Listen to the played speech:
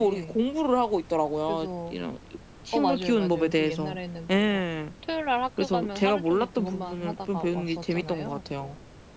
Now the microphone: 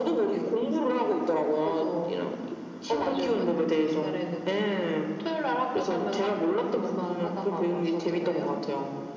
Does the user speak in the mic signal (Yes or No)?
No